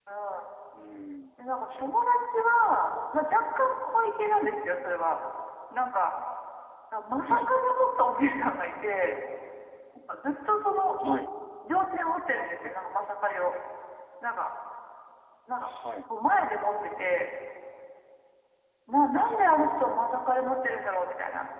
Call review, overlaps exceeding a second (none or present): none